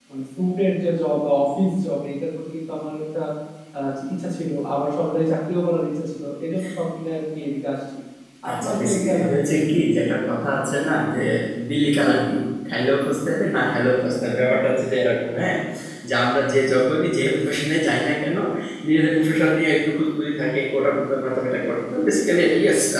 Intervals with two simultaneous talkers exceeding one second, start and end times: 8.6-9.8

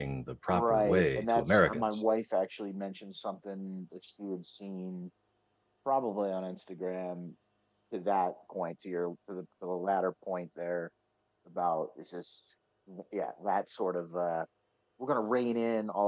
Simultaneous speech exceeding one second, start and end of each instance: 0.5-2.0

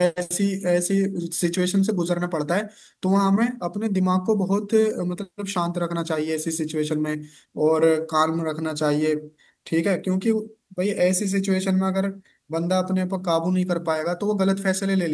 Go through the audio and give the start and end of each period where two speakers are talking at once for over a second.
none

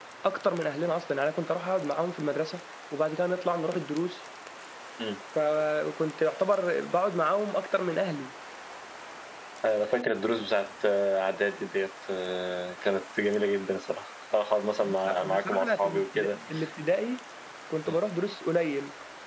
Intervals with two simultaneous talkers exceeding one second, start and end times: 14.8-16.4

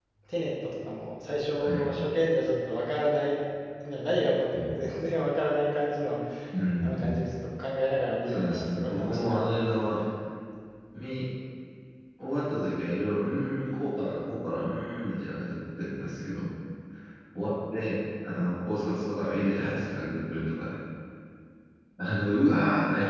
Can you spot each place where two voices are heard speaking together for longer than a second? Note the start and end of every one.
8.3-10.0

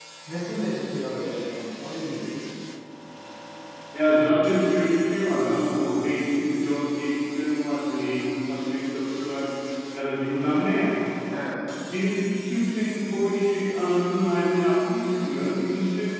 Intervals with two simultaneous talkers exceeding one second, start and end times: none

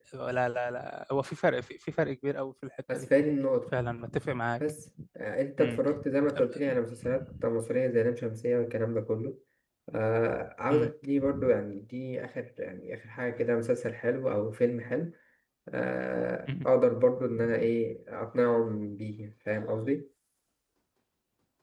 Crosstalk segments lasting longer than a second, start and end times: none

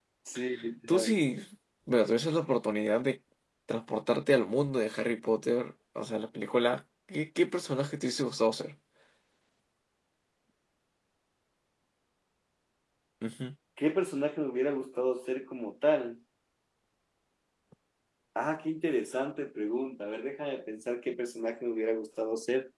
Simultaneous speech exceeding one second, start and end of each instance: none

